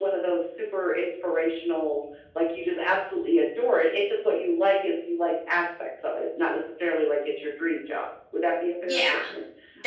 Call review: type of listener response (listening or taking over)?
taking over